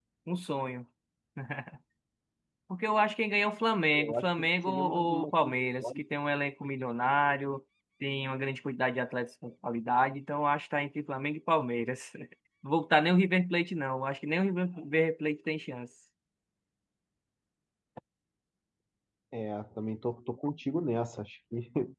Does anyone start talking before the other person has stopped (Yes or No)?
Yes